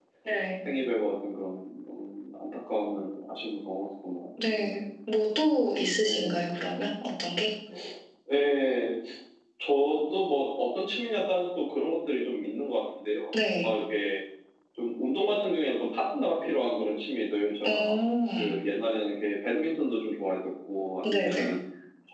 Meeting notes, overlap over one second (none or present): none